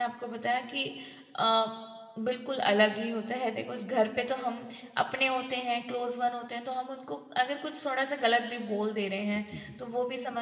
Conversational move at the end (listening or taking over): listening